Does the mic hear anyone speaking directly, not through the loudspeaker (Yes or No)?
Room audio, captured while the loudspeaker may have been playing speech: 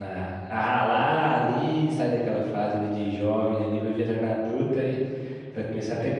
Yes